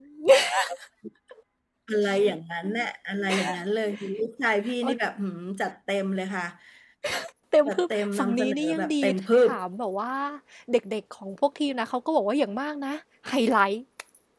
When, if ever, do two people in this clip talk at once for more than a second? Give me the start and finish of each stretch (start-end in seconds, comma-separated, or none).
7.7-8.9